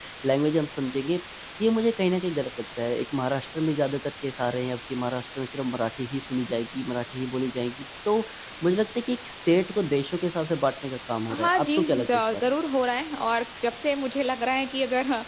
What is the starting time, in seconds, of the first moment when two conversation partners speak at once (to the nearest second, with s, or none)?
11 s